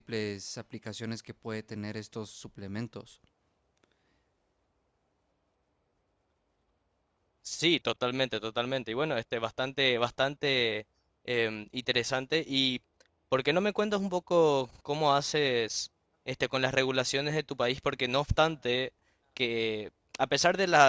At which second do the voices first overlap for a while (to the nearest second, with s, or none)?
none